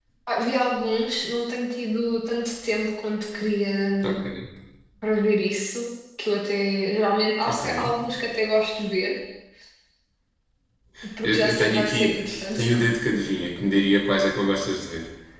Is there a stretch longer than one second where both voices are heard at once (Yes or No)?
Yes